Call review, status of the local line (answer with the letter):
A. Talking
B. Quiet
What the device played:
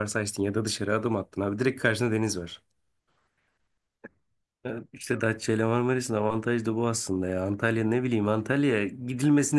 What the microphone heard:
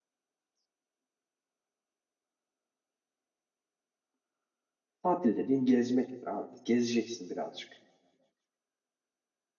A